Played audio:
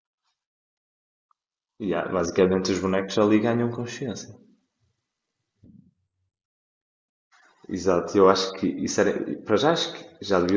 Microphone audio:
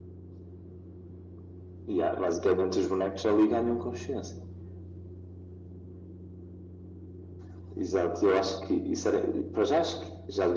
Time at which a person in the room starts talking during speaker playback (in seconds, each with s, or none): none